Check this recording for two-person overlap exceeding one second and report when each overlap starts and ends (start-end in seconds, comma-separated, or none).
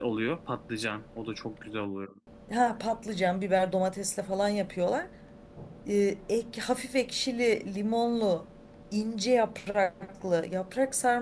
none